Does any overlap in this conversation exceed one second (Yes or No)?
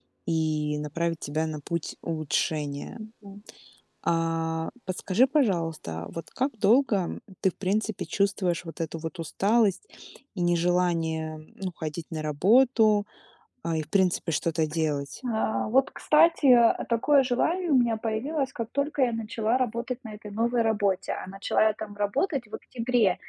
No